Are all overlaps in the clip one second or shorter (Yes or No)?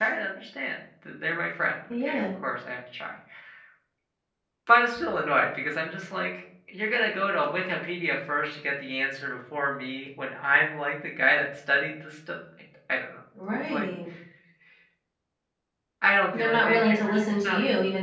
No